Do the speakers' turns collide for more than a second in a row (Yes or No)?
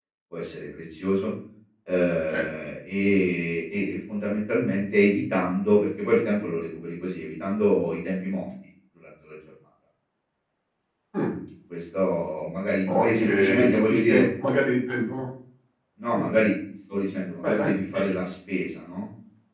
Yes